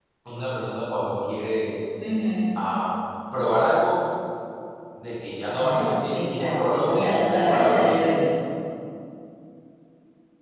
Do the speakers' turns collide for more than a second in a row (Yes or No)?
Yes